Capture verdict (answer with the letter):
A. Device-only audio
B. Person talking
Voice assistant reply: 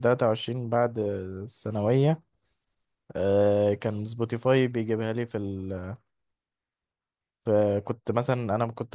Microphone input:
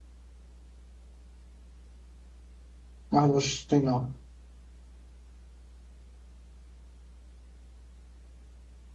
B